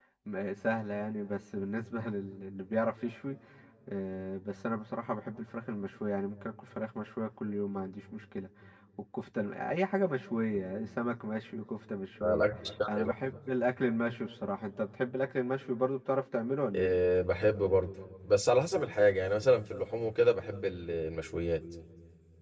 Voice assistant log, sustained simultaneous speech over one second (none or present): none